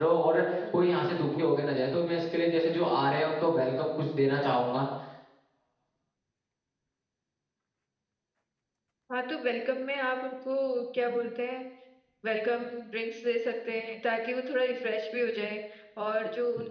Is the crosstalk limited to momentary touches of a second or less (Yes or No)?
Yes